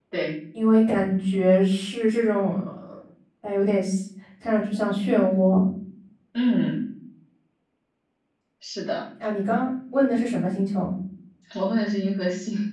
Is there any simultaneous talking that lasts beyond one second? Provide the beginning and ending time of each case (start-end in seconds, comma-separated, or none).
none